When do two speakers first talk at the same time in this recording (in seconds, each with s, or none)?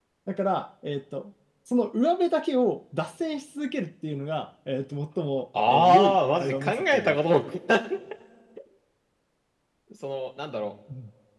5.5 s